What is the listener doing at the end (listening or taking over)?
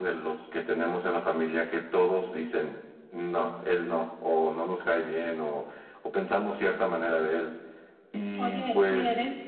taking over